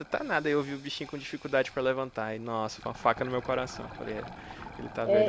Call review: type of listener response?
taking over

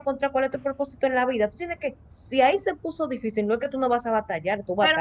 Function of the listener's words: taking over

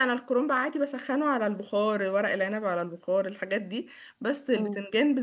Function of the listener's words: listening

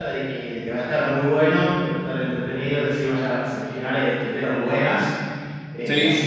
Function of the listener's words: listening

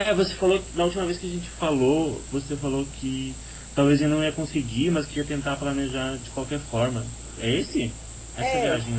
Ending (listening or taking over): taking over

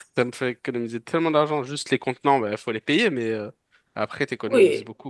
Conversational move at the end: taking over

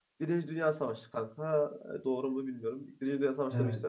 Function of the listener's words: listening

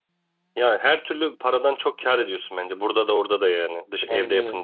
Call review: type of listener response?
taking over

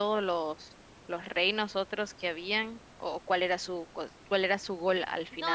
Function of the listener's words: taking over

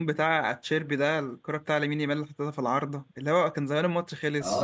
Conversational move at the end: taking over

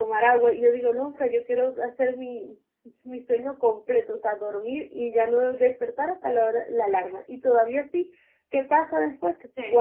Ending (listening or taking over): listening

